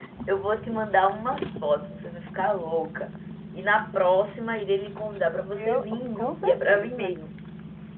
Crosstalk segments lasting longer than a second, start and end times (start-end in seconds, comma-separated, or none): 5.6-7.1